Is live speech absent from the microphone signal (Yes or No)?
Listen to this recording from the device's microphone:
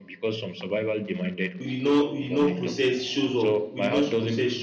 No